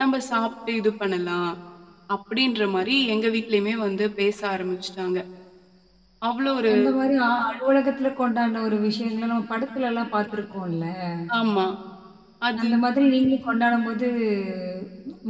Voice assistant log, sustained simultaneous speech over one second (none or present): none